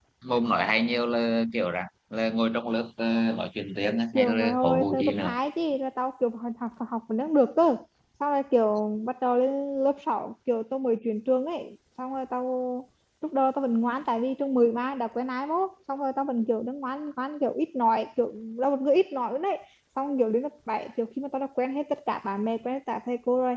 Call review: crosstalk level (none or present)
present